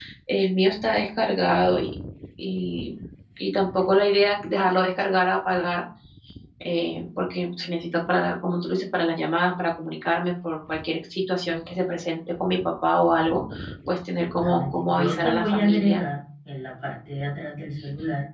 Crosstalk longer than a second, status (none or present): present